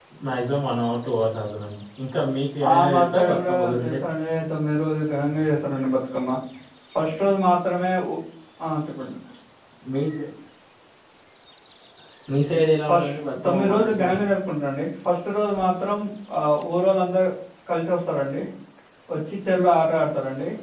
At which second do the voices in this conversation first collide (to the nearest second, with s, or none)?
3 s